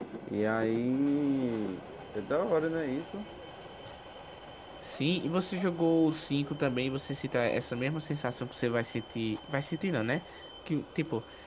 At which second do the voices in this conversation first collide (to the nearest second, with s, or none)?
none